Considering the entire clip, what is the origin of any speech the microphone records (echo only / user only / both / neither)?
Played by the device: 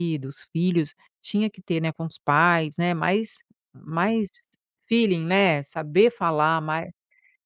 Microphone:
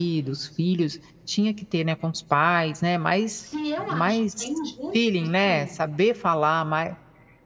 both